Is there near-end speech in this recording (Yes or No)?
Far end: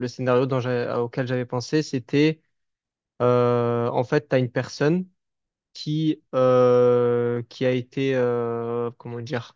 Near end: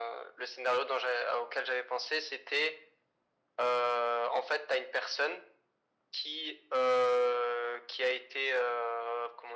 No